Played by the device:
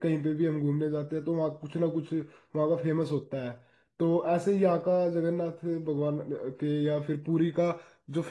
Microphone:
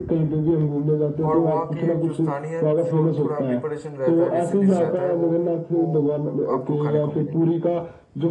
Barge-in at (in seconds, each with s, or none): 1.3 s